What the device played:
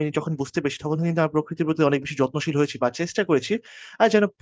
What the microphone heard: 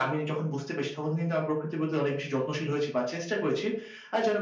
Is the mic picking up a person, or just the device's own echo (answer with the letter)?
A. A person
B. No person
B